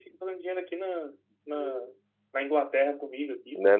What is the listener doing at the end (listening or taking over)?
taking over